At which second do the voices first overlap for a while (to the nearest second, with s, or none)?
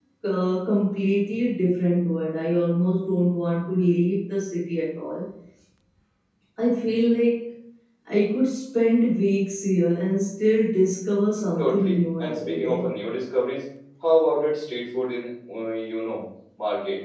12 s